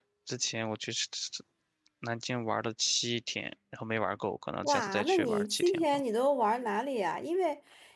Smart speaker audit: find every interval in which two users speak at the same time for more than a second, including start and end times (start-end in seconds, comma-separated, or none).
4.6-6.0